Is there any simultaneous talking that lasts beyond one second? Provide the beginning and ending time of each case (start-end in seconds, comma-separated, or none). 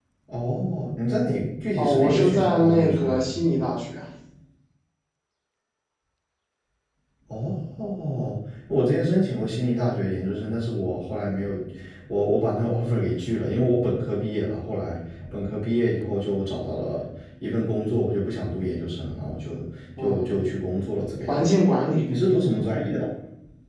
1.8-3.3